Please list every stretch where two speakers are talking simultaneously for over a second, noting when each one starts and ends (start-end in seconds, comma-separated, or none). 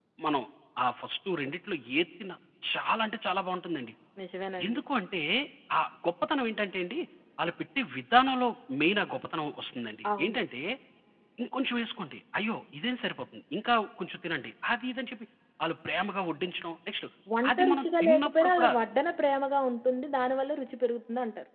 17.5-18.7